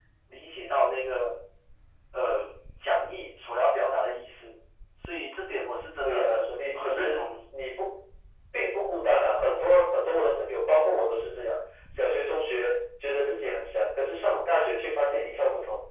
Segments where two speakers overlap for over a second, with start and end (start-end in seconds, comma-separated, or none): 6.0-7.3